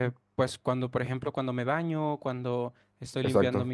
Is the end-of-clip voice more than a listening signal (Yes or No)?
No